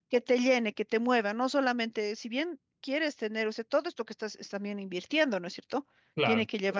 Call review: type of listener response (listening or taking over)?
listening